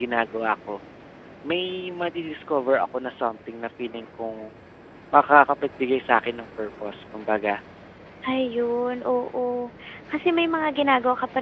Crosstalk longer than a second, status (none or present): none